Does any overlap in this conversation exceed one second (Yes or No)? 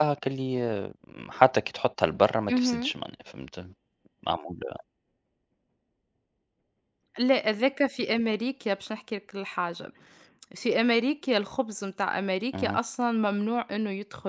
No